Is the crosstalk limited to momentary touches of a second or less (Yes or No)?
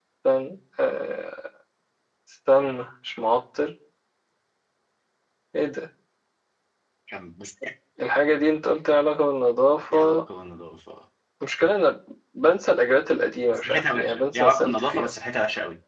No